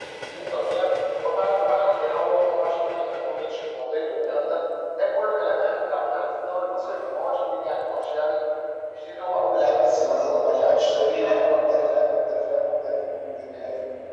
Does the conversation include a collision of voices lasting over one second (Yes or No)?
Yes